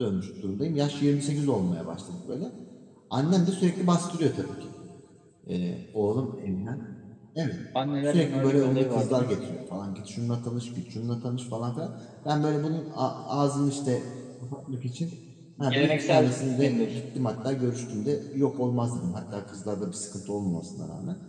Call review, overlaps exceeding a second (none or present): present